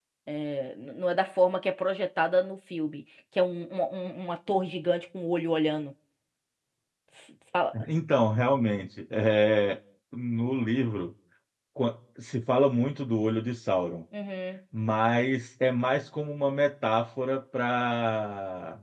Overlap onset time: none

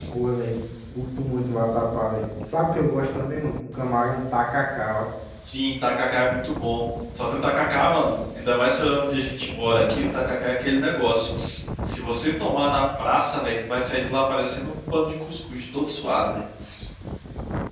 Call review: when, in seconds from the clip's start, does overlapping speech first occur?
none

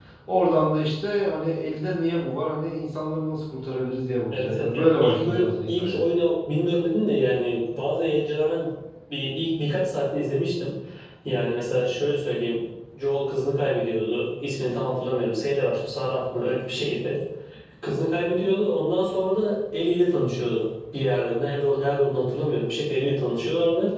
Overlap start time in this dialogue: 4 s

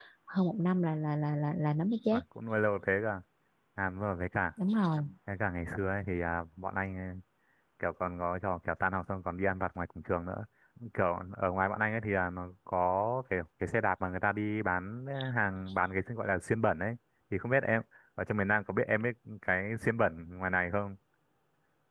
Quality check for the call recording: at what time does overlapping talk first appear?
none

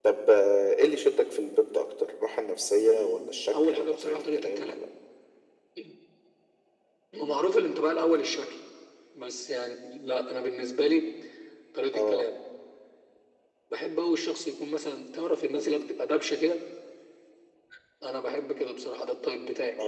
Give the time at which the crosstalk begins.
3 s

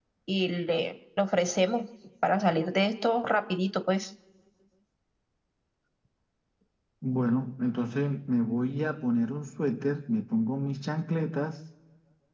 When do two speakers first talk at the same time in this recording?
none

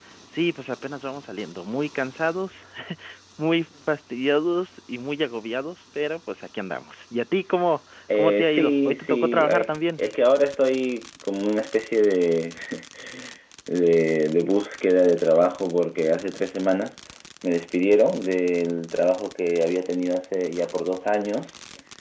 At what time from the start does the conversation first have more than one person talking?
8 s

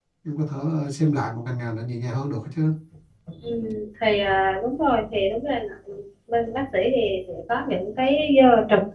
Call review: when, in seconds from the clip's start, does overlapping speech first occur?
none

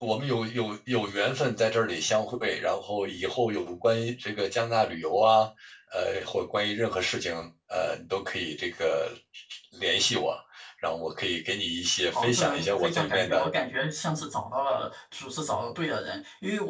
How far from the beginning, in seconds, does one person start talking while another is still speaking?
12 s

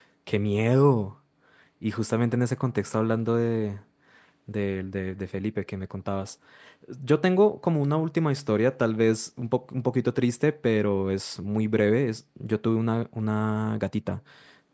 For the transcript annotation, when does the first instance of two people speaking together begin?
none

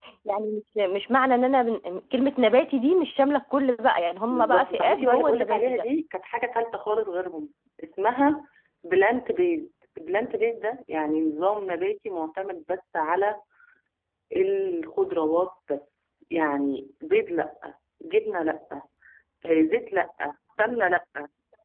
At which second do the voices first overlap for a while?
4 s

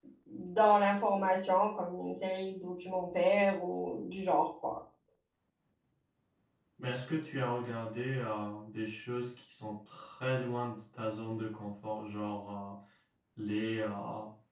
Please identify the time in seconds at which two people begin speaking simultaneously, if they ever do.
none

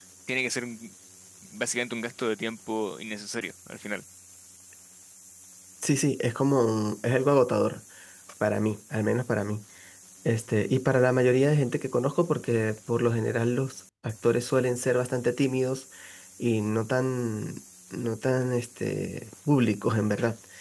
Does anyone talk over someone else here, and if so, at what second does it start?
none

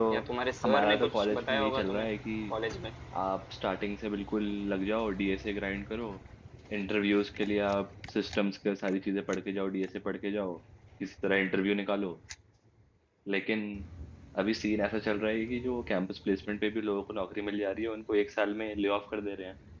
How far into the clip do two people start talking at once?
1 s

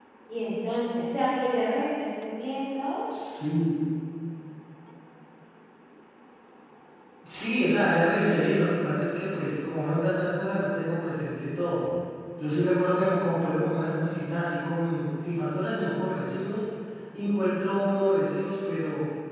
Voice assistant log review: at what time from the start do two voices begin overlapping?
none

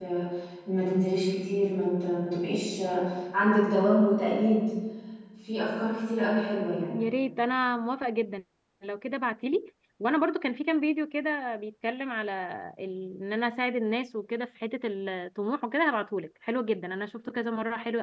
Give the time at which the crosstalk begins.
none

